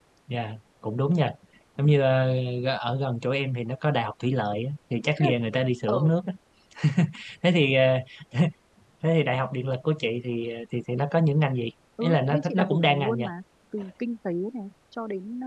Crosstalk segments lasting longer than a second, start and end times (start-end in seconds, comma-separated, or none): 12.0-13.3